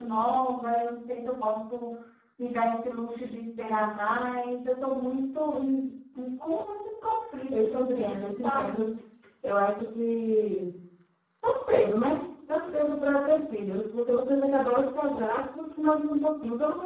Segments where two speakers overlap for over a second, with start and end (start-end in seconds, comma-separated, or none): 7.5-8.9